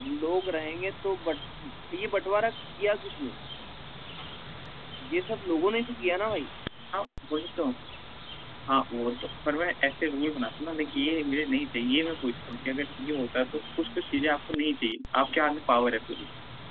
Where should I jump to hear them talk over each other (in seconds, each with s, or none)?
none